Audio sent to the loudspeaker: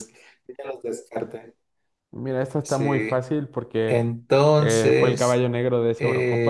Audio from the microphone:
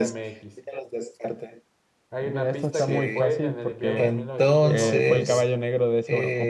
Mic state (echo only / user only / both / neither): both